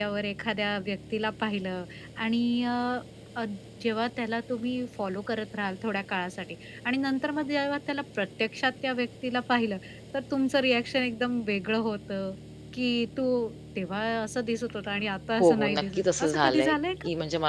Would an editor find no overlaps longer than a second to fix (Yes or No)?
No